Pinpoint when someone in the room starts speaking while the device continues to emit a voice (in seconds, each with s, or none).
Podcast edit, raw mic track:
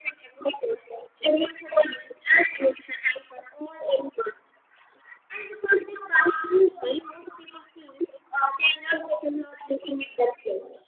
none